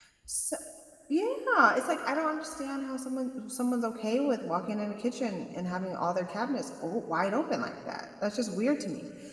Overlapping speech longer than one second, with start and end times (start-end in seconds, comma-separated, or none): none